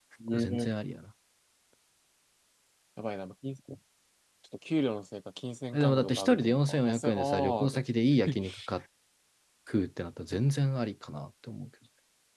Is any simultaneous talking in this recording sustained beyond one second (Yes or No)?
Yes